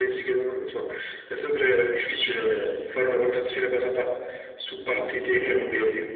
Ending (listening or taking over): taking over